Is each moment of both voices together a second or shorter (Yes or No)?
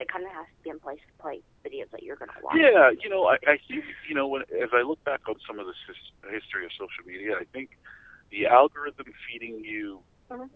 No